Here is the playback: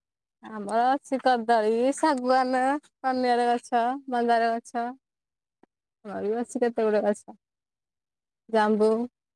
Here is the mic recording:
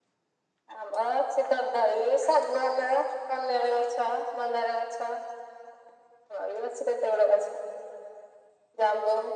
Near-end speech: none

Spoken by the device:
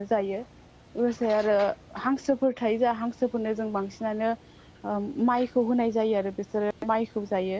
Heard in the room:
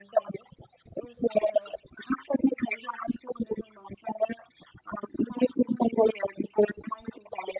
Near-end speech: none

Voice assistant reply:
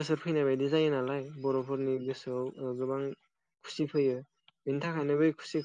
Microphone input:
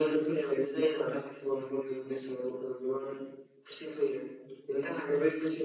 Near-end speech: none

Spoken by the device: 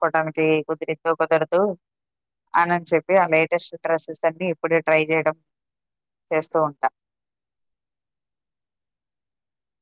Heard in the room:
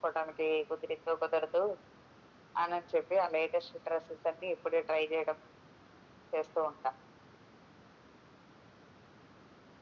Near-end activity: none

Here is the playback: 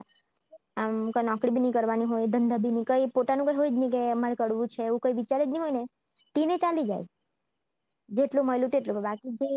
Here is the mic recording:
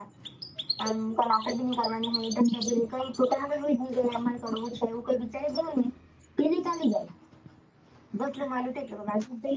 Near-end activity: none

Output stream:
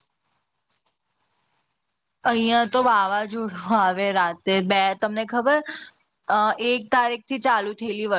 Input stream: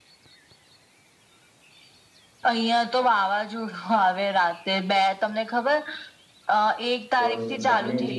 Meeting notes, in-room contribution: present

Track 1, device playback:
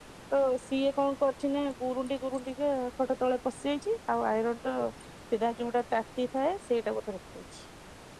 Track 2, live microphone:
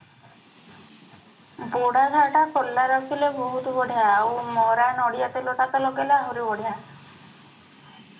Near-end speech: present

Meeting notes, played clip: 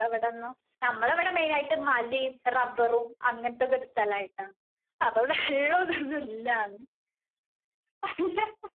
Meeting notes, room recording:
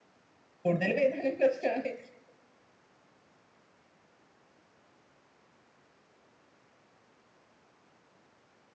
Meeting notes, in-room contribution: present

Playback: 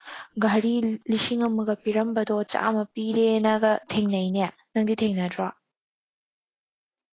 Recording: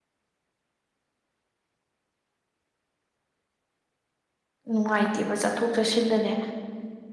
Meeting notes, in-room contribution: present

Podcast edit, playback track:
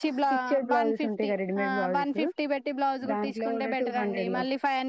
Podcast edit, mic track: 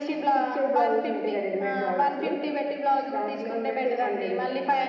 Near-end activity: none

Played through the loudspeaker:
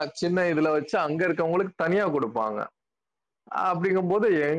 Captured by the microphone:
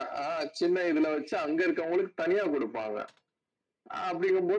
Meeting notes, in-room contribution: none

